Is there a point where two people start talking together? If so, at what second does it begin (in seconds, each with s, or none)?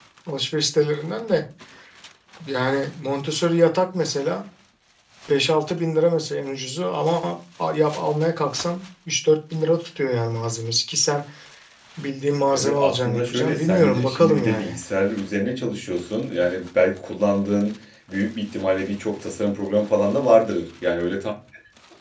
12.5 s